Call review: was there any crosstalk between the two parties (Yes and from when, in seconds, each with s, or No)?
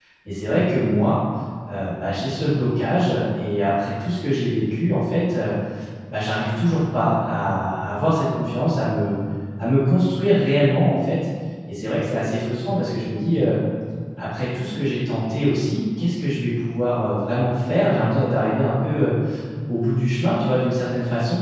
No